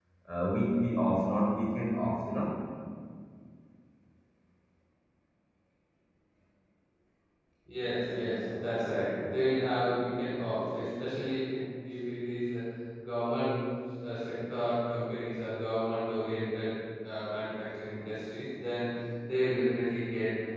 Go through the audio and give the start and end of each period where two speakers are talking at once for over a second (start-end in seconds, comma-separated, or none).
none